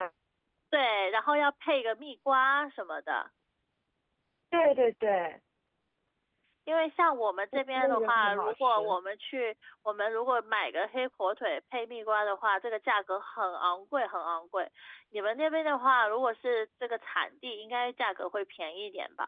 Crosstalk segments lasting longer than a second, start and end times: 7.5-8.9

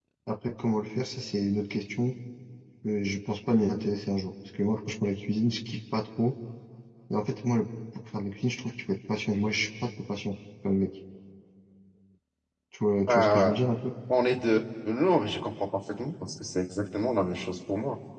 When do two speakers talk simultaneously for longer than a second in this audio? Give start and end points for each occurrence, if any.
none

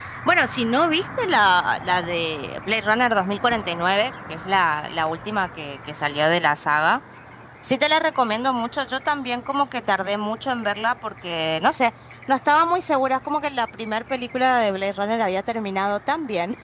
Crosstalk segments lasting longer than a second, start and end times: none

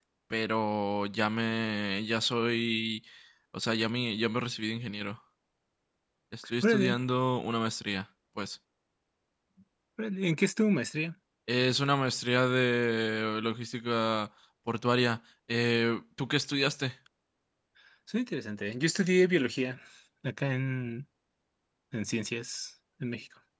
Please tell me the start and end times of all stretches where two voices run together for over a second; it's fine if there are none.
none

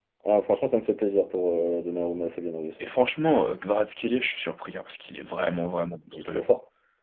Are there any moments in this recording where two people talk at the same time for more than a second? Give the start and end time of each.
none

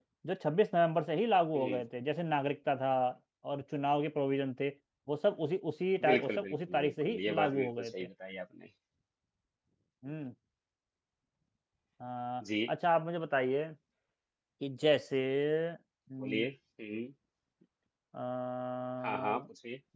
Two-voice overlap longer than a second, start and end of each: 6.1-7.9

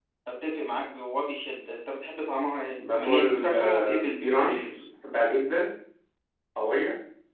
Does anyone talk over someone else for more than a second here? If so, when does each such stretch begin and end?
3.0-4.7

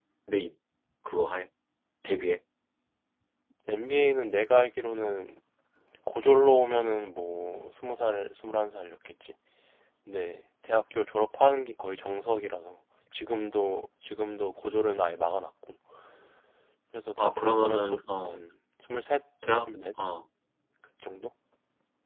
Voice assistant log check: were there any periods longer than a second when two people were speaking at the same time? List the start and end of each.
17.2-18.4

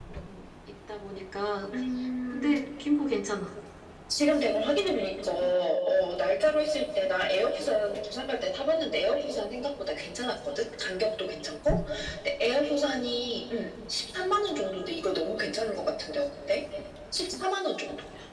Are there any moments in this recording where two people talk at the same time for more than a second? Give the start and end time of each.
none

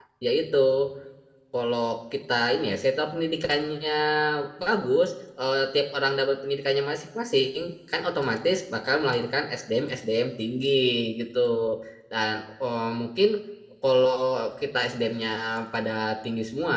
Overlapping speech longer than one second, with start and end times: none

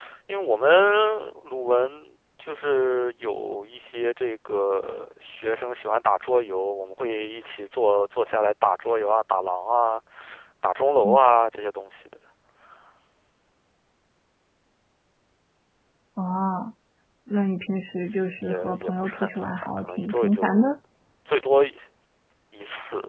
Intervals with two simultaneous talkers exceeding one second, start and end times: 18.4-20.8

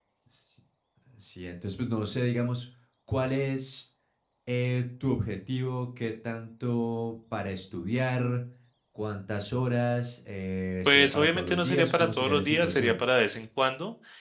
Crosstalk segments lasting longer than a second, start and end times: 10.9-12.9

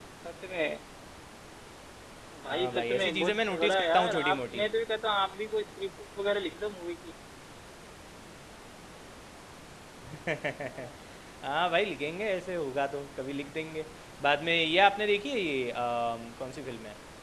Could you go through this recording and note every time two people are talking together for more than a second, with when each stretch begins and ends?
2.5-4.6

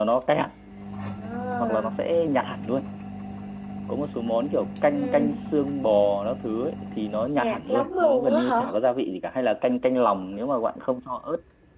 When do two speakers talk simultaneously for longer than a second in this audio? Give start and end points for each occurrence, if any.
7.3-8.6

